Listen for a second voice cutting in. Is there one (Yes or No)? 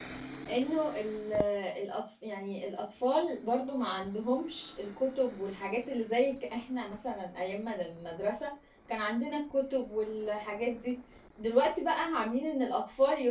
No